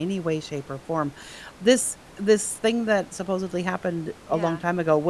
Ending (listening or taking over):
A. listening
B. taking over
A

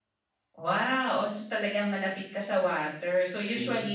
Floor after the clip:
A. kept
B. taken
A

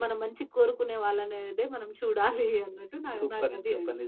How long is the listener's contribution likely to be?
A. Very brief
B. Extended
B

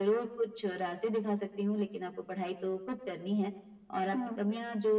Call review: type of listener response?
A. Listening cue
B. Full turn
A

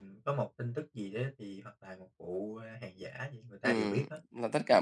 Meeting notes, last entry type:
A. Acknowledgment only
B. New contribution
B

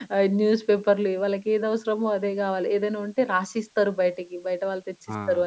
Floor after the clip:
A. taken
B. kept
B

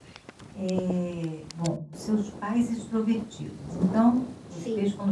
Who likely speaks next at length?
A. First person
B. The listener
A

